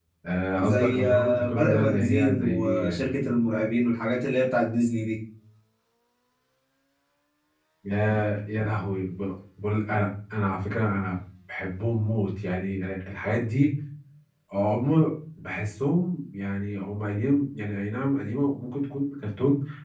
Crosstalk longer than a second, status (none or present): present